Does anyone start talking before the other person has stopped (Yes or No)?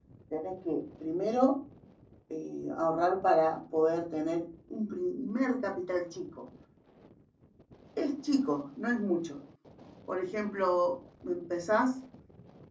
No